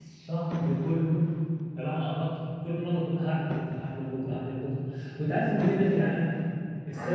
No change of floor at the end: Yes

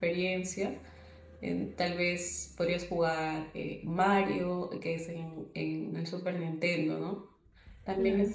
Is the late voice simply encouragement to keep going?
Yes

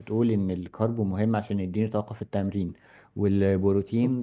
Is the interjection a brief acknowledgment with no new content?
Yes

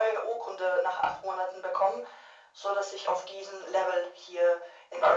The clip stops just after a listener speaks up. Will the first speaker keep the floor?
No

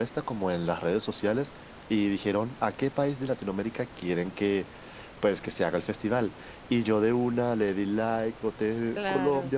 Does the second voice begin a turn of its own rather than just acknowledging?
No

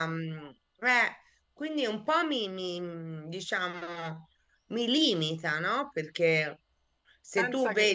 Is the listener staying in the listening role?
Yes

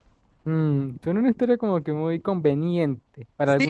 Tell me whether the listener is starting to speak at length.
Yes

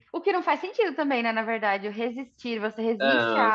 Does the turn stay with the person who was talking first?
Yes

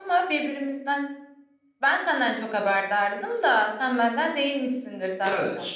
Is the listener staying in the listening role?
No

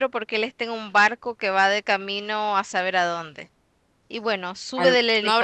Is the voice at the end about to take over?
Yes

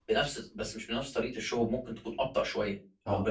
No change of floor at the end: Yes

